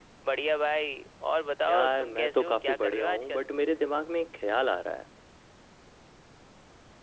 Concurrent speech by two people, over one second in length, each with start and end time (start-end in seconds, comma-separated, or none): 1.7-3.4